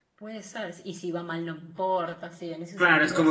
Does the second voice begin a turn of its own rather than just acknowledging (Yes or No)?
Yes